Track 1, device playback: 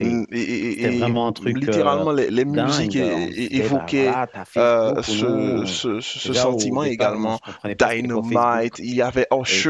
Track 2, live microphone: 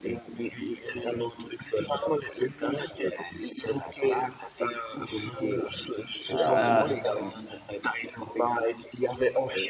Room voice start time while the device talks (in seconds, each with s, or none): 6.3 s